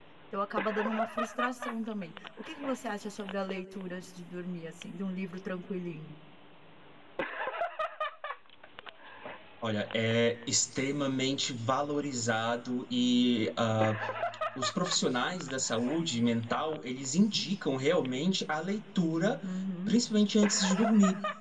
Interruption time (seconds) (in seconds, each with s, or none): none